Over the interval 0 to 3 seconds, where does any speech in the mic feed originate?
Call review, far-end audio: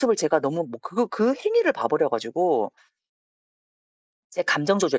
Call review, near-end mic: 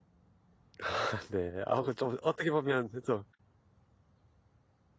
user only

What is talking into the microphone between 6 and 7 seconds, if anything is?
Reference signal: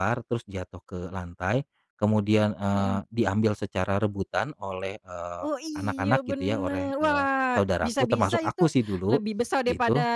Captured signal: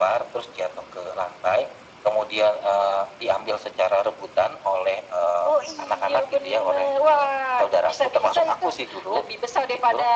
echo only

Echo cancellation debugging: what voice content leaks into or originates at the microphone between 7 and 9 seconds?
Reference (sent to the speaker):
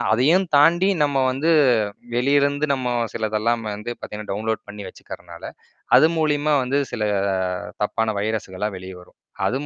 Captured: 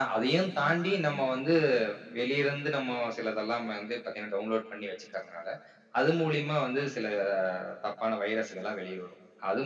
echo only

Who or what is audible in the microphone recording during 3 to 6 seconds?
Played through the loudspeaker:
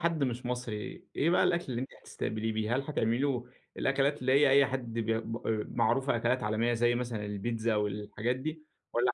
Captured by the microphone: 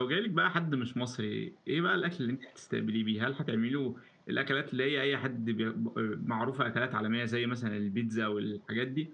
echo only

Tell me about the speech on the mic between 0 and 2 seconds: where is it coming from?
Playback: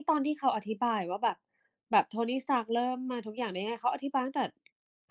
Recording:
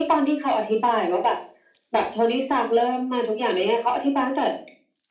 echo only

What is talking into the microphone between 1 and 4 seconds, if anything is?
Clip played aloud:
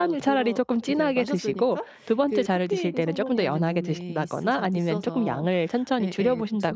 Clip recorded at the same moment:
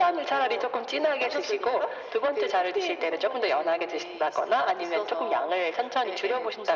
echo only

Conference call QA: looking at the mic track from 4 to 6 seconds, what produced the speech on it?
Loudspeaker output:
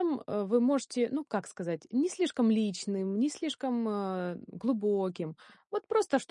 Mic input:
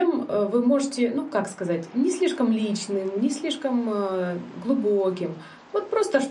echo only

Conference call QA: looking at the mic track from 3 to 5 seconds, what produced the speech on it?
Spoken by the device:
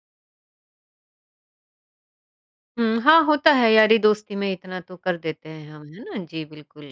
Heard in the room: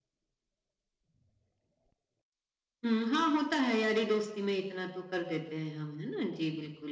echo only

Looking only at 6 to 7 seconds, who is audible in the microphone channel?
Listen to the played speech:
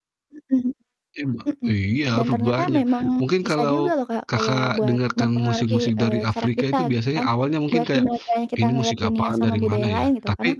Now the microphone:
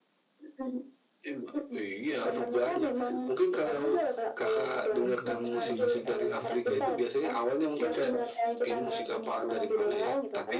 both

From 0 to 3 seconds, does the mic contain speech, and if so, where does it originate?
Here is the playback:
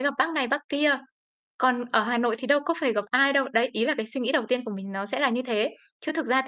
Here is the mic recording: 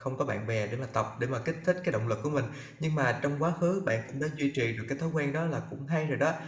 user only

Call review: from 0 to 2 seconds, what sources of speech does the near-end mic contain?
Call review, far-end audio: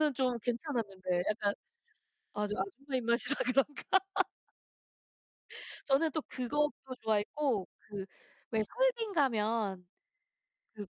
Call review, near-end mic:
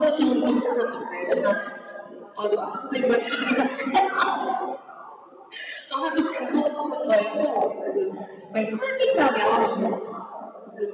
echo only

